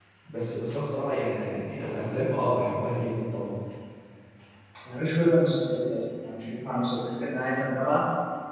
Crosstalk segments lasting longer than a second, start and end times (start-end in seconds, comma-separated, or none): none